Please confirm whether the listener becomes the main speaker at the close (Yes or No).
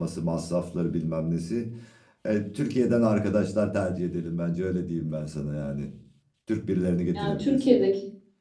Yes